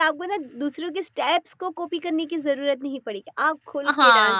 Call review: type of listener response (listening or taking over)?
taking over